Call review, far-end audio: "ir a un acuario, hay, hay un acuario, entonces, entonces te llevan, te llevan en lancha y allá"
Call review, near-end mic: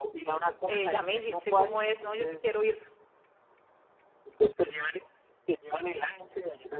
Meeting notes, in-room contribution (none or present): present